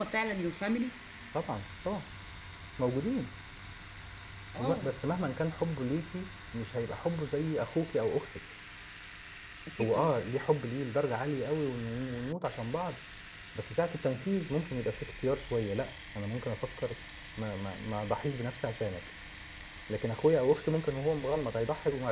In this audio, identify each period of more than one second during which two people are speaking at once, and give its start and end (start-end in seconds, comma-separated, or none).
none